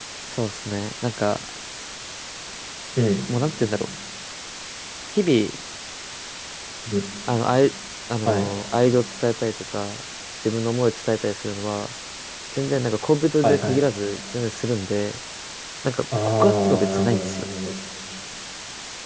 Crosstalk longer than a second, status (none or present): present